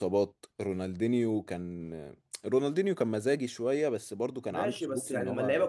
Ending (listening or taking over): taking over